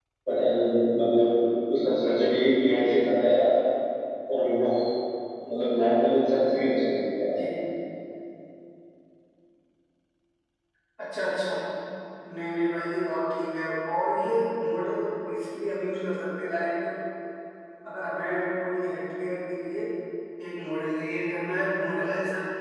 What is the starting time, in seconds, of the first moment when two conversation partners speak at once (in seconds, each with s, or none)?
none